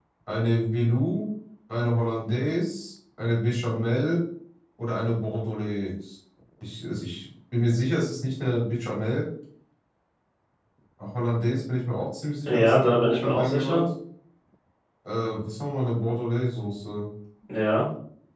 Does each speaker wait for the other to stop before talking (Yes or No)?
No